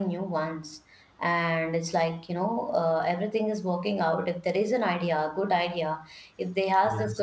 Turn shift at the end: No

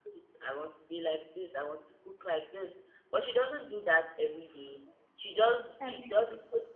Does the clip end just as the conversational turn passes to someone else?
No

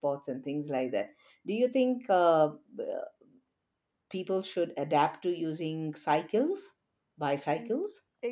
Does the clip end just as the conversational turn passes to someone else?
Yes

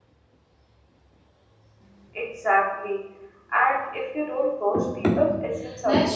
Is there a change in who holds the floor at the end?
Yes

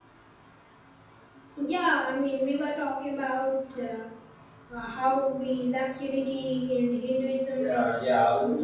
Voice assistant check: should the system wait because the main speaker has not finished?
No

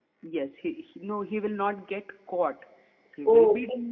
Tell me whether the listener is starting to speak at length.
No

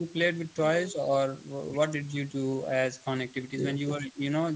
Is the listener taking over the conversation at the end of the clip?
No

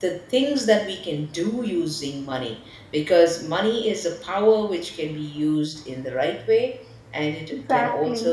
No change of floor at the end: Yes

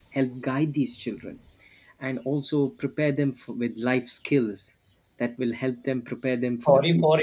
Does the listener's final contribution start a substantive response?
Yes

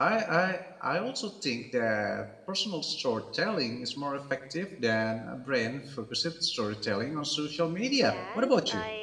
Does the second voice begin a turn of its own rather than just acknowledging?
Yes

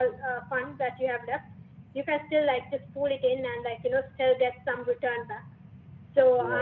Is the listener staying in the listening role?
Yes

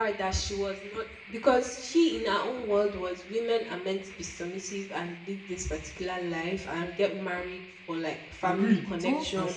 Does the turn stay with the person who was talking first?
No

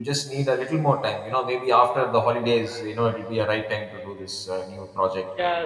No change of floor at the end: No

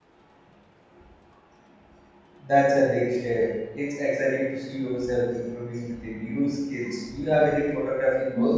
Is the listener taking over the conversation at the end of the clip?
Yes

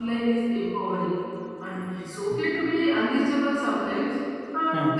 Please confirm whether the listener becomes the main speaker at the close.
No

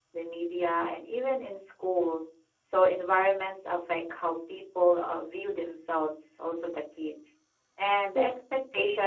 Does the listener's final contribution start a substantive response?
No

